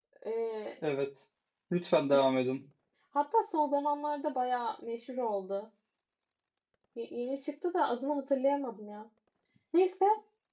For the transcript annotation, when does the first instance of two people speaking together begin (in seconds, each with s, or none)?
none